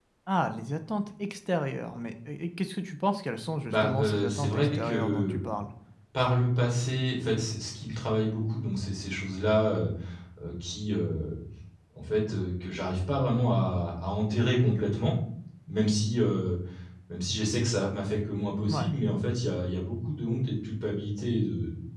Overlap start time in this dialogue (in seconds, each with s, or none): 3.6 s